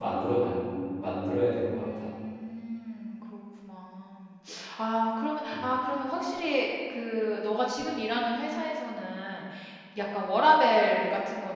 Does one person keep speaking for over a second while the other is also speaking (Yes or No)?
No